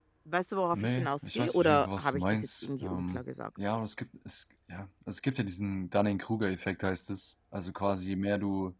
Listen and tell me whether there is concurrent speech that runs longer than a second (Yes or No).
Yes